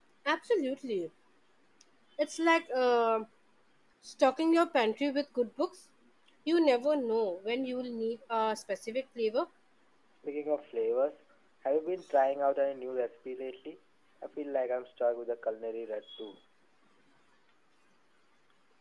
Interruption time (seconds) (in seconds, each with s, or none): none